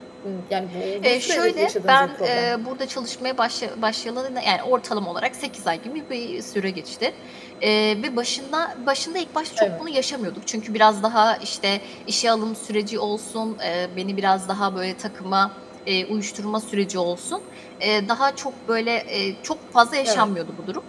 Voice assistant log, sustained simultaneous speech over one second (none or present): present